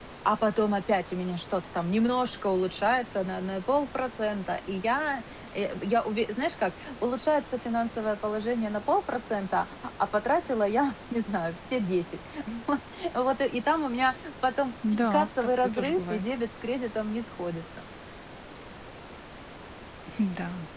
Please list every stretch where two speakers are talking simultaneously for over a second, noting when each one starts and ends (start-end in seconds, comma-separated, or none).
14.9-16.2